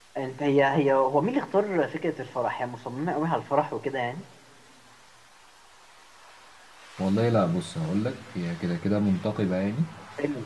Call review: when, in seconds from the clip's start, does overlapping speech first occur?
none

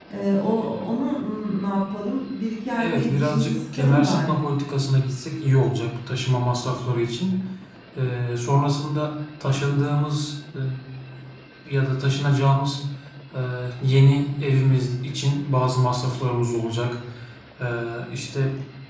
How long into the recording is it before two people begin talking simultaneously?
3 s

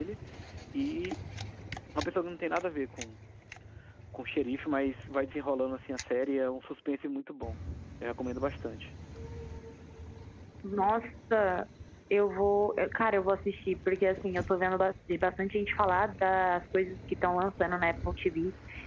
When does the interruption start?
none

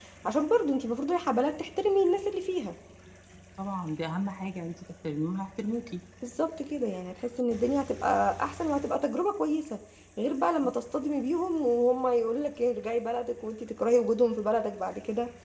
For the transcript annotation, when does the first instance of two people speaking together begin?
none

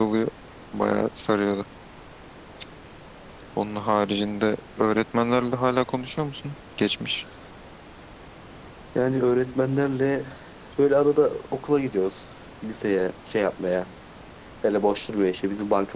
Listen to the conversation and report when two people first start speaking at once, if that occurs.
none

